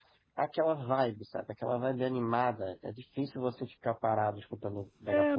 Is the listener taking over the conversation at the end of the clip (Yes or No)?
Yes